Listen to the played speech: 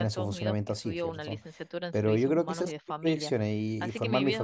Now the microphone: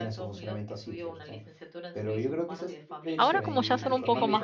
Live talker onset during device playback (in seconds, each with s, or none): 3.2 s